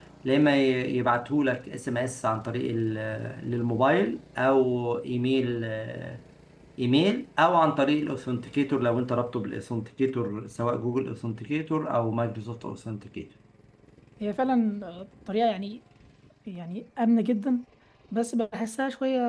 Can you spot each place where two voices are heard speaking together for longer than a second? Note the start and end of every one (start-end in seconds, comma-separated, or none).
none